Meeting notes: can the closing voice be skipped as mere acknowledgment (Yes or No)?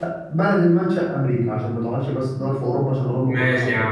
No